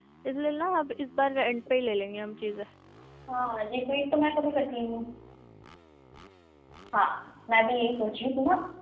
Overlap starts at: none

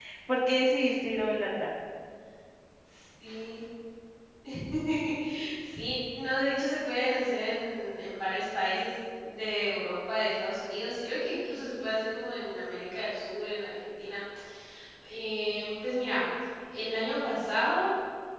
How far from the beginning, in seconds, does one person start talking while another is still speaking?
none

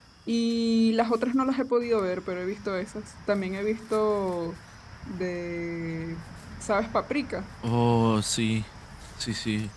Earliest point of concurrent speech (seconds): none

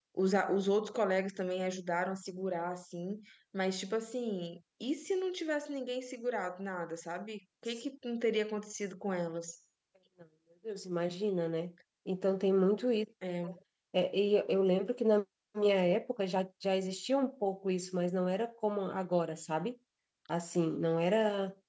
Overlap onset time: none

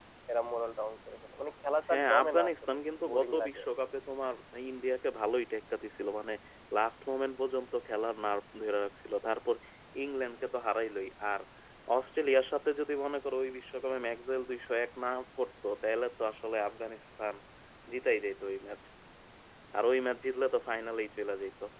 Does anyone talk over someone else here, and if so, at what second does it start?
1.8 s

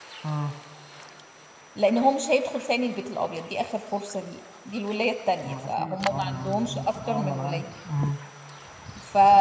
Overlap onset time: 5.4 s

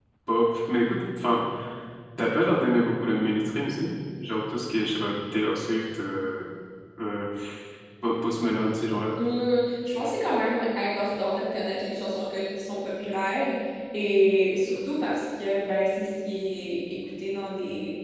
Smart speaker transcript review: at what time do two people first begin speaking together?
none

